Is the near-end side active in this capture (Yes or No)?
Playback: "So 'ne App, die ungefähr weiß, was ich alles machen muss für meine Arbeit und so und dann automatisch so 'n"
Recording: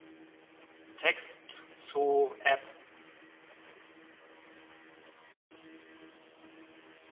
Yes